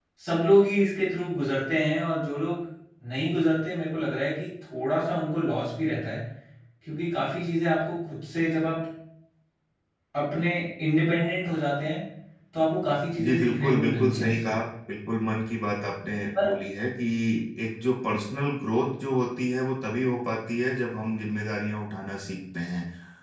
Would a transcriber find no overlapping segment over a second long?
No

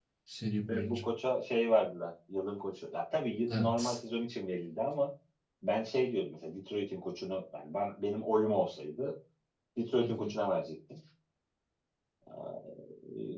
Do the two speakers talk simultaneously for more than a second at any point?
No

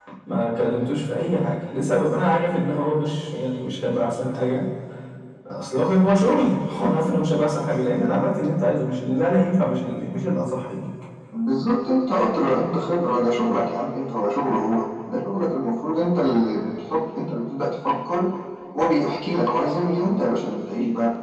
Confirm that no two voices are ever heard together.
Yes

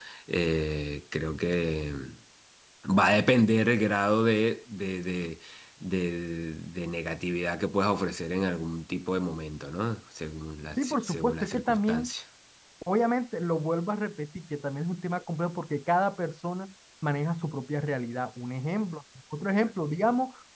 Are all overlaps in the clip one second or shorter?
No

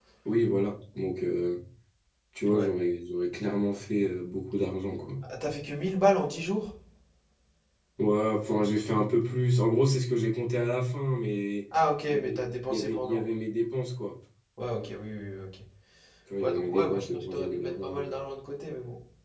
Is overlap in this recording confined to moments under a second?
No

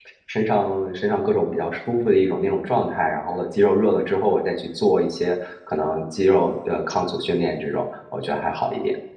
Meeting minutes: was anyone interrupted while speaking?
No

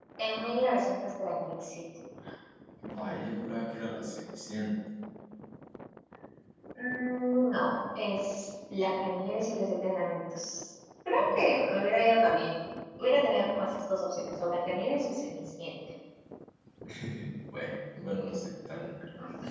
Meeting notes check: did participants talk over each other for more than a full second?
No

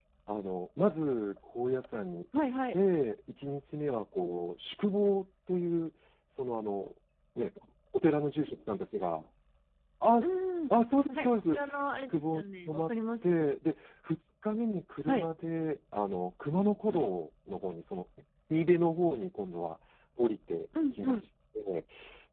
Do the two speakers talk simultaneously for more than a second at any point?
Yes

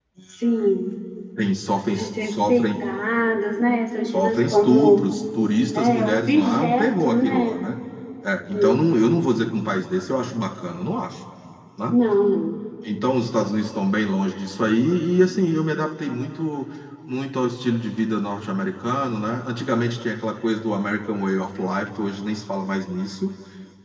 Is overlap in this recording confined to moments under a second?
No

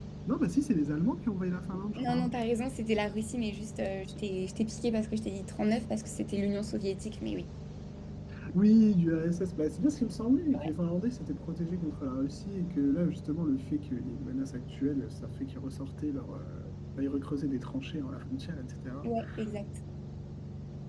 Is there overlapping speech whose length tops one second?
No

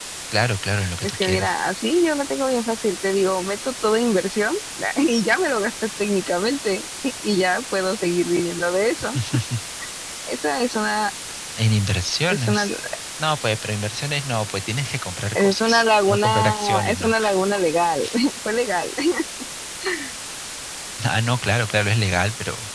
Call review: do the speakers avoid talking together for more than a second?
No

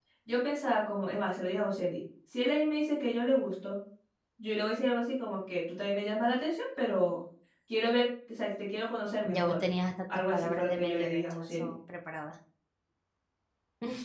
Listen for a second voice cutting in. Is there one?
Yes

